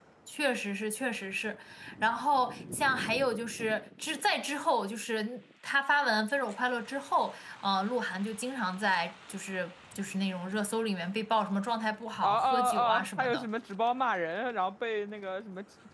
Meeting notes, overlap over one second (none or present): present